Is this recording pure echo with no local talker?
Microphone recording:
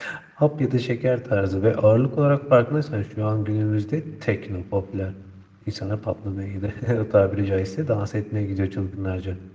No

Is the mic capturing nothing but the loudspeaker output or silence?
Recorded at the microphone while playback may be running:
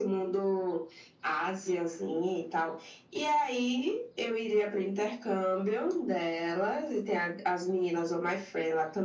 Yes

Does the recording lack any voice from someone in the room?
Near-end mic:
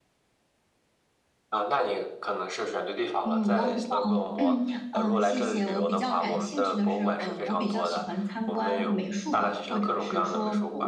No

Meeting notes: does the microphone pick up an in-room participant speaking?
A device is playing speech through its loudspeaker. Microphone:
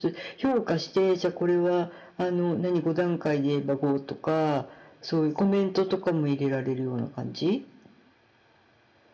No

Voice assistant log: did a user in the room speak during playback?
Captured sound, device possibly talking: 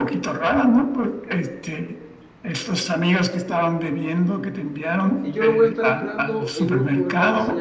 Yes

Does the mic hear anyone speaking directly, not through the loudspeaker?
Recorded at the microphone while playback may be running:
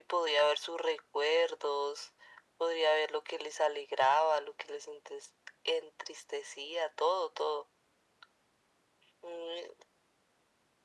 No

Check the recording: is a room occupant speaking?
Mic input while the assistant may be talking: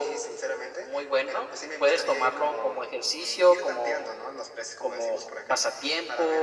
No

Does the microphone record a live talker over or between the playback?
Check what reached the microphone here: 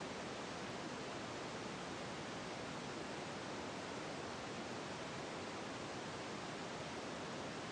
No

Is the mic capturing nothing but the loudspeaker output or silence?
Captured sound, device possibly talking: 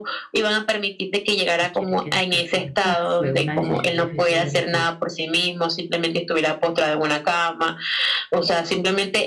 No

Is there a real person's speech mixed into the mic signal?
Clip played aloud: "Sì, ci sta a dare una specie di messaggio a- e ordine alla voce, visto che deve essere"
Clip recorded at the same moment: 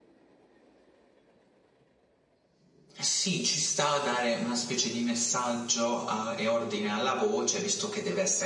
No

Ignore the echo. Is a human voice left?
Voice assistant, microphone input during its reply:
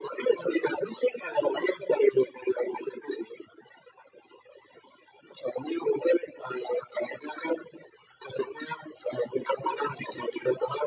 No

